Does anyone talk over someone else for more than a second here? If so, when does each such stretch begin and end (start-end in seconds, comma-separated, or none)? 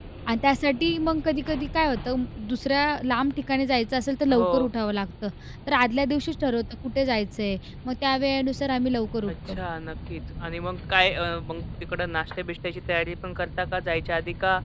none